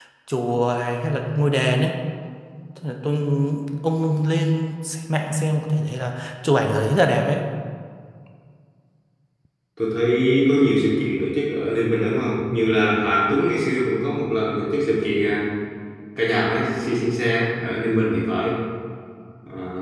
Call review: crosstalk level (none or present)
none